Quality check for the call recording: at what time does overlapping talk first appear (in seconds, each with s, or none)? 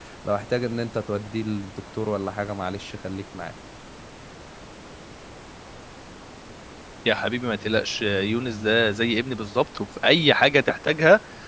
none